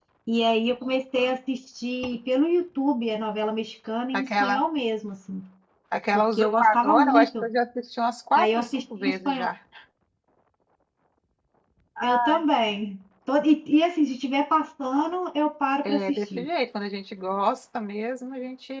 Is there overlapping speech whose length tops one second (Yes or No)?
Yes